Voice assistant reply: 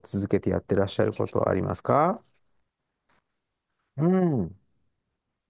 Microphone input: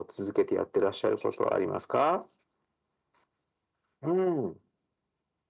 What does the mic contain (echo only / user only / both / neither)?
echo only